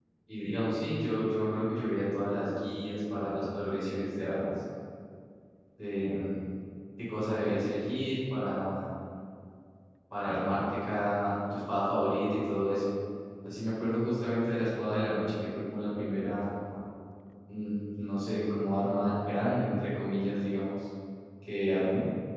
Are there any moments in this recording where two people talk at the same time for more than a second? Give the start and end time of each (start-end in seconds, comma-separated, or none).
none